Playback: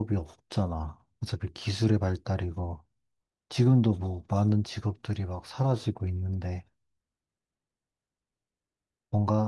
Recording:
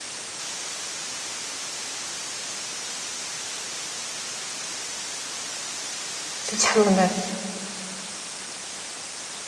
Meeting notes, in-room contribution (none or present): present